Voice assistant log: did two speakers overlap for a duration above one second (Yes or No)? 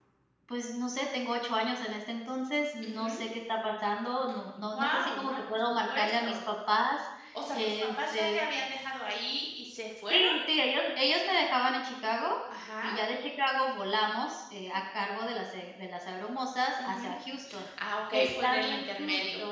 Yes